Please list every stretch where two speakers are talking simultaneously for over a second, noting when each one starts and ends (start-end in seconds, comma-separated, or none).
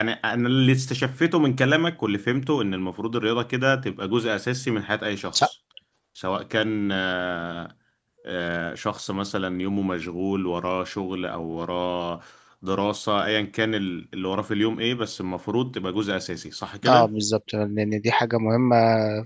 none